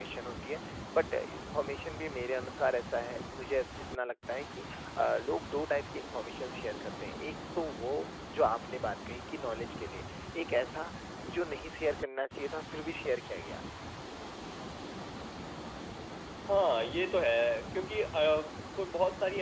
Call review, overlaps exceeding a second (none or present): none